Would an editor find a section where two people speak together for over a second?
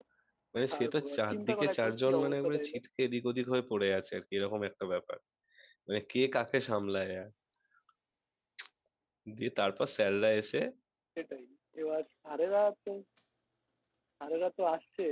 Yes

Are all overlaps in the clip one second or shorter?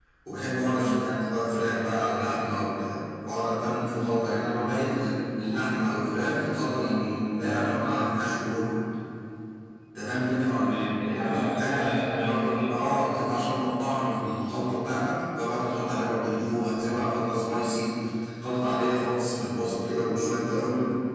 No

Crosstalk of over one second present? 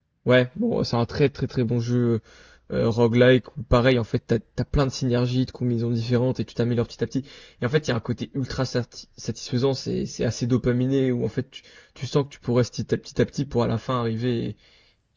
No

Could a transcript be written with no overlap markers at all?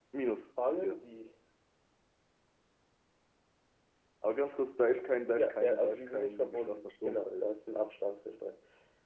No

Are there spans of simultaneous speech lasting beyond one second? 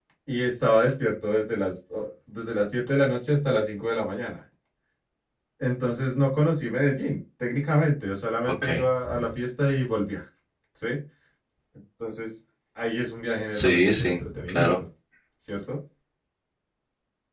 Yes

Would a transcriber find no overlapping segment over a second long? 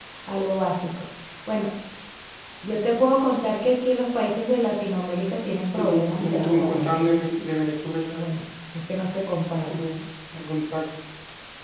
No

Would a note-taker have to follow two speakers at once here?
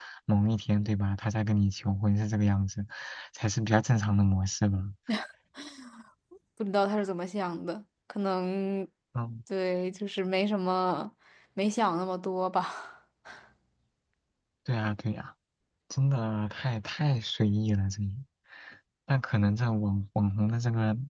No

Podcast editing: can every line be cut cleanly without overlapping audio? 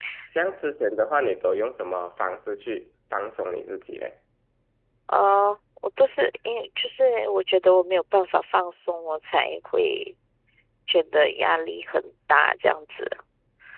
Yes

